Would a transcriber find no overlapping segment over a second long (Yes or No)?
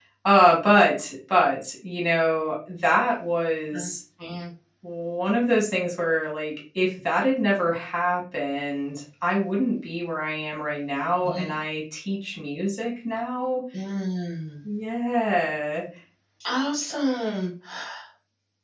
Yes